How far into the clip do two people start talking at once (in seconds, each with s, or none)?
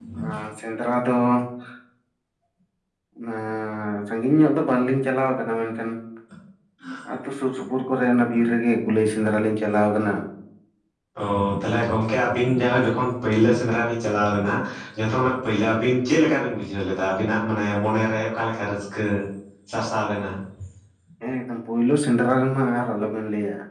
none